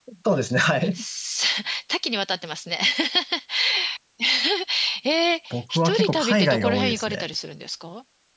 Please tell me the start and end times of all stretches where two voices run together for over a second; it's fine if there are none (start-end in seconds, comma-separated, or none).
5.5-7.3